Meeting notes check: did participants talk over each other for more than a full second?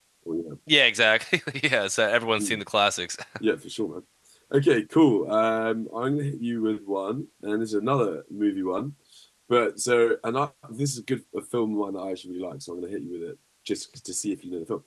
No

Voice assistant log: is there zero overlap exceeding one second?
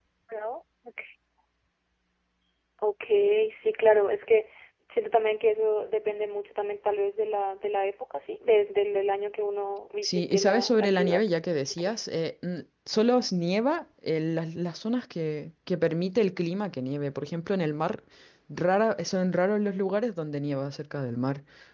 No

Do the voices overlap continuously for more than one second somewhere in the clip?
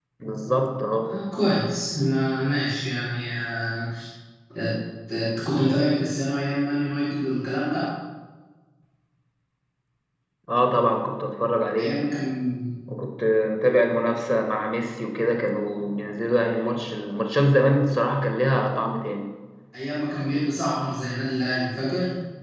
No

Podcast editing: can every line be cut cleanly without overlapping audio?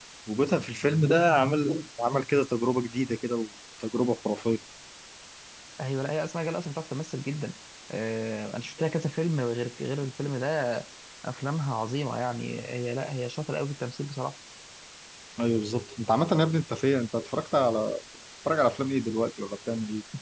Yes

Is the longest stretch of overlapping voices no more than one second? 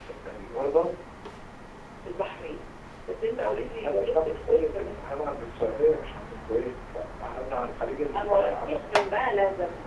No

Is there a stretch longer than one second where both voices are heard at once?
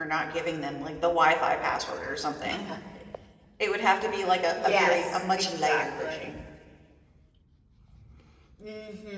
Yes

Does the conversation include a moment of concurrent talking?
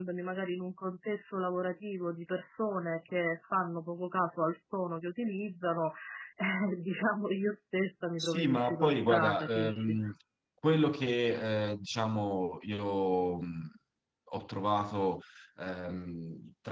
Yes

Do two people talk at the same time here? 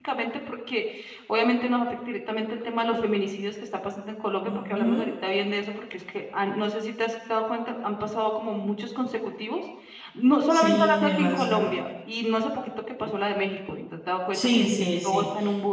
Yes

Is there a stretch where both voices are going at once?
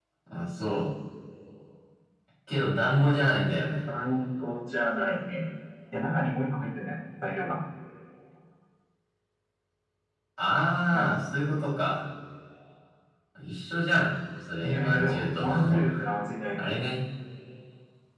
Yes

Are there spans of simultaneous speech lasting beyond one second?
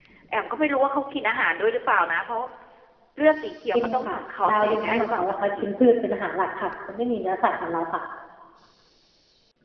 Yes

